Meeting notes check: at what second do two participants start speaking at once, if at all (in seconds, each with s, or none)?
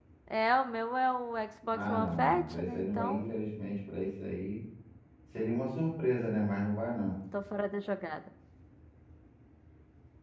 1.7 s